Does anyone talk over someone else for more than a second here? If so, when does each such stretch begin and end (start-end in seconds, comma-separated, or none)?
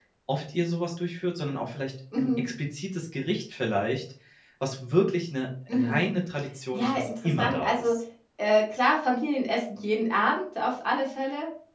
6.7-8.0